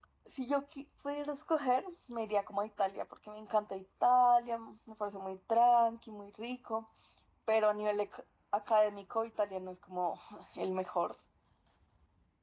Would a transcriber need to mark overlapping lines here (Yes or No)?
No